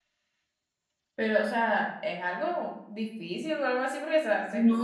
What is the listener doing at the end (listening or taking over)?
taking over